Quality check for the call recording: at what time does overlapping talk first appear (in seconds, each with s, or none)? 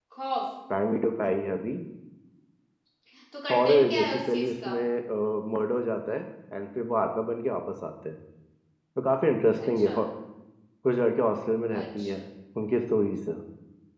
3.5 s